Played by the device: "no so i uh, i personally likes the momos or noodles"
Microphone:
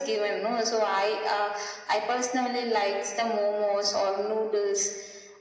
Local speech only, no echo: none

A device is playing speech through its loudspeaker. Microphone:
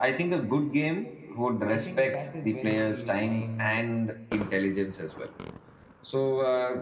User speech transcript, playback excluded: I think that is when the mind

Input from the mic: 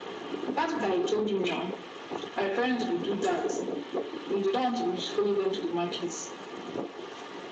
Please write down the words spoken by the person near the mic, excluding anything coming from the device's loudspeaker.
none

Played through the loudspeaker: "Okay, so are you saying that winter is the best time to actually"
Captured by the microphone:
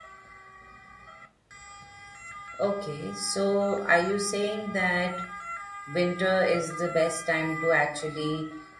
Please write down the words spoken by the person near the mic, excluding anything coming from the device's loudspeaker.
none

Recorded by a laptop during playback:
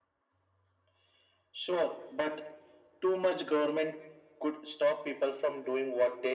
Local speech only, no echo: none

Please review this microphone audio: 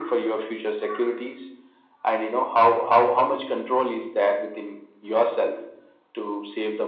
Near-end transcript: none

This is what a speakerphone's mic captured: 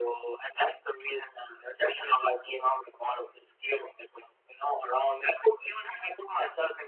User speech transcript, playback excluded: none

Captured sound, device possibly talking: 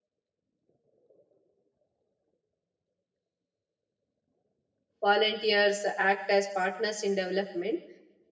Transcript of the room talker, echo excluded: Volunteers act as partners in development,

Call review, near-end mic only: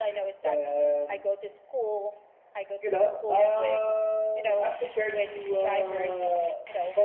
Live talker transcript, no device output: none

